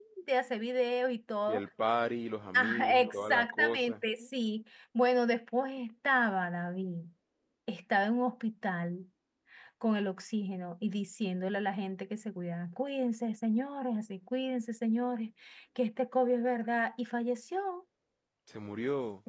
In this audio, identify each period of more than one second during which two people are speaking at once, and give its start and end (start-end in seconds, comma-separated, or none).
2.5-3.9